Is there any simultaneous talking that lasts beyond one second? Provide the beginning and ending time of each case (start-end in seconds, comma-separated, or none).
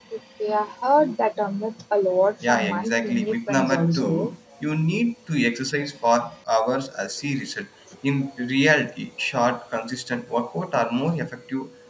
2.5-4.3